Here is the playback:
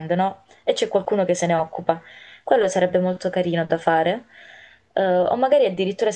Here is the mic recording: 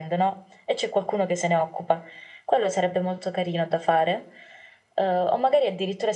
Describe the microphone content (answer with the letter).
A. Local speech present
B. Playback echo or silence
B